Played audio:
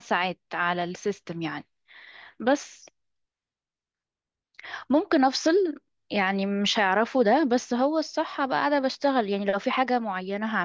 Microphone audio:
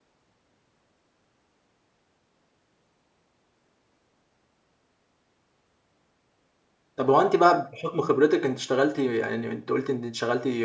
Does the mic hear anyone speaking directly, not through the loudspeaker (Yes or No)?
Yes